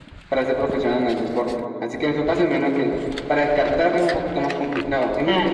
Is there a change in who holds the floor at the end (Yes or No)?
Yes